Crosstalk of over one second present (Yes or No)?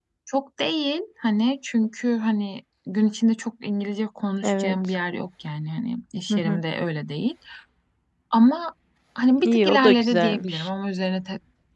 Yes